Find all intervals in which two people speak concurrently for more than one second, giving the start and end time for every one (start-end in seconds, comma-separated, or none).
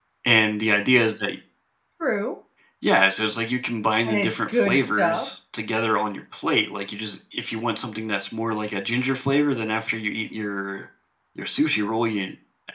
4.0-5.3